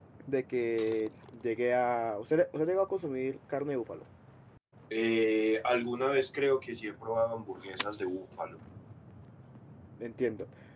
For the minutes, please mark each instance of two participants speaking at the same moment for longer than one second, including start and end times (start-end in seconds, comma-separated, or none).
none